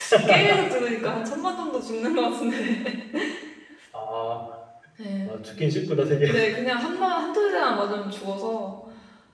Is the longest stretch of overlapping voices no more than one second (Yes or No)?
Yes